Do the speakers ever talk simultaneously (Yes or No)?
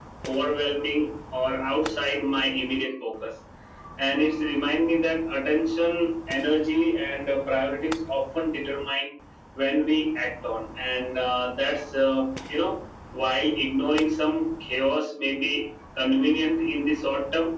No